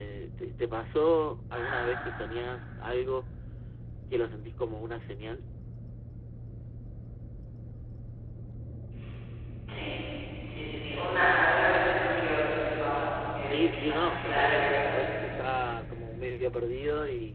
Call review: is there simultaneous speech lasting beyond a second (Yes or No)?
Yes